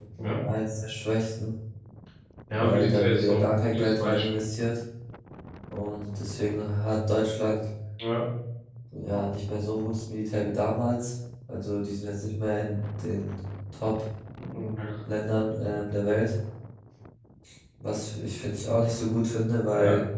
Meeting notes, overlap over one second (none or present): present